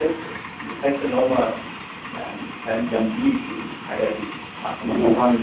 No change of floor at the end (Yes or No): Yes